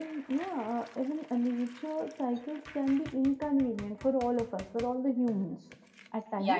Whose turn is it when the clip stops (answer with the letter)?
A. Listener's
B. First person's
A